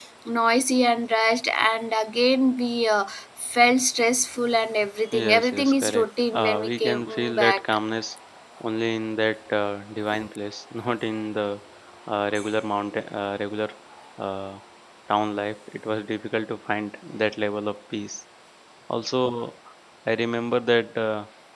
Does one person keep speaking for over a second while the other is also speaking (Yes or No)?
Yes